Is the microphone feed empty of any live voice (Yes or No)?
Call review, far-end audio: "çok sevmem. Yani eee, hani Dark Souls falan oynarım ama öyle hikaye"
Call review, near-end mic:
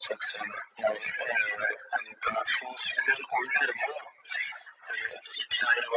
Yes